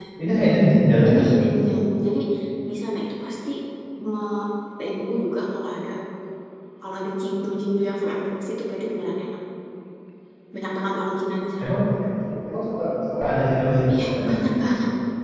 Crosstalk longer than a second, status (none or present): none